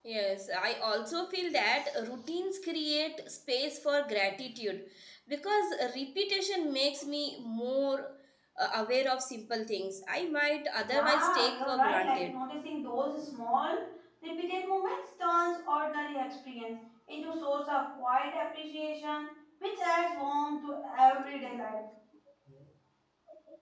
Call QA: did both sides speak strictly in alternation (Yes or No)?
No